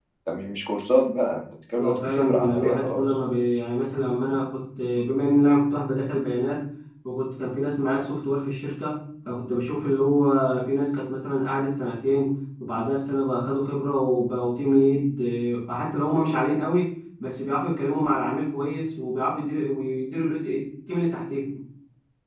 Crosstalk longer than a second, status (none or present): present